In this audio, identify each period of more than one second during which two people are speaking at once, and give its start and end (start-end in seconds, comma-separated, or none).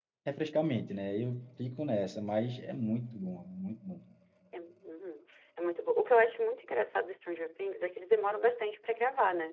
none